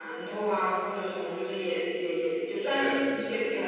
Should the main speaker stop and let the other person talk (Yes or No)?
No